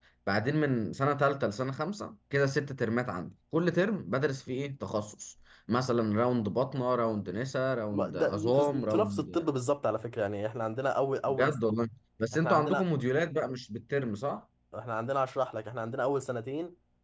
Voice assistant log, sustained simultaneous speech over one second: present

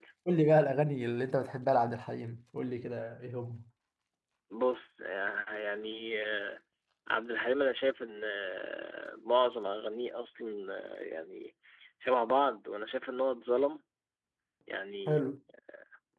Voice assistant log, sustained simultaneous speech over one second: none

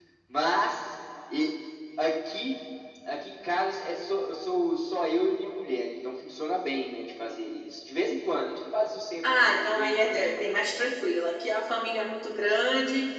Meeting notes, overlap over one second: present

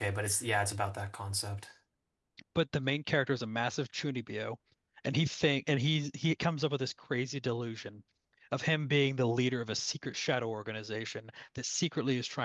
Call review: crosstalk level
none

